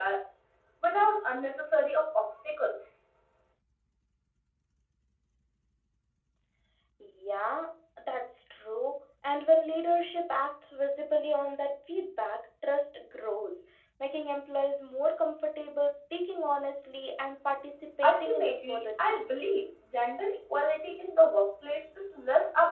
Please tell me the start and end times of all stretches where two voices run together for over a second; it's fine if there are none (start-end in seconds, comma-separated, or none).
18.0-19.5